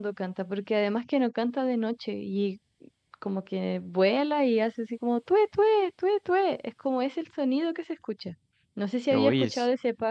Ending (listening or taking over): listening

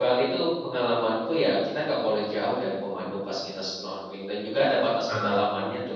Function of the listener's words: listening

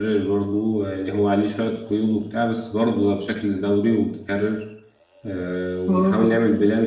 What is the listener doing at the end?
listening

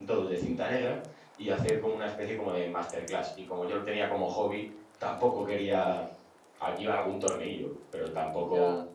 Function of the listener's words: listening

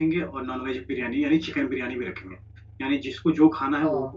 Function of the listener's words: listening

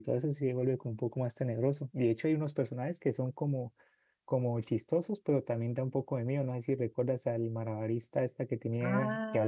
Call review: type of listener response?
taking over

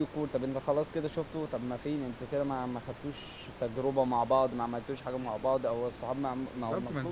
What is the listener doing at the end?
taking over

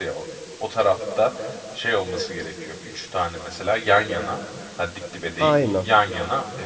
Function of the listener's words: listening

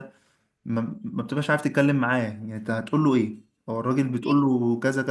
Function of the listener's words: listening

